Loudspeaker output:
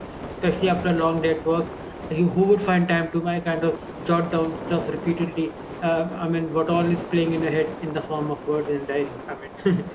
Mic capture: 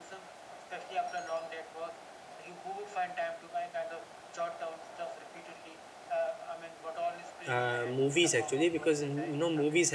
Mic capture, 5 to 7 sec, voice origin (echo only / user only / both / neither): echo only